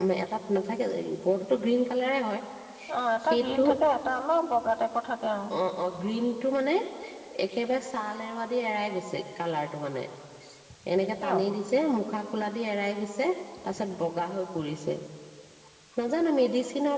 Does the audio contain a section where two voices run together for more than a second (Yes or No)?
No